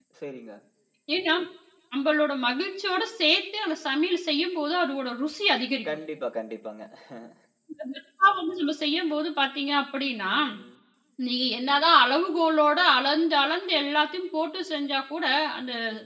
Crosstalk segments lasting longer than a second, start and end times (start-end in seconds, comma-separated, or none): none